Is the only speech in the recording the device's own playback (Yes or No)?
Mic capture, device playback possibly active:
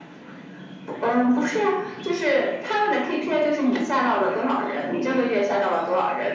Yes